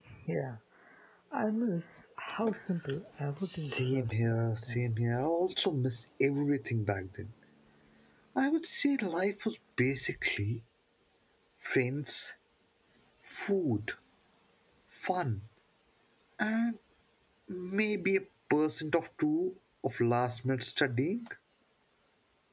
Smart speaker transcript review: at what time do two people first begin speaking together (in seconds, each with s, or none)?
3.4 s